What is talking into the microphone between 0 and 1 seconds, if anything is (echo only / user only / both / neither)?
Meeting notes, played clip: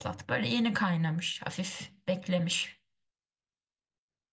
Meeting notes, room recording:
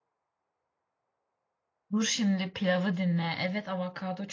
neither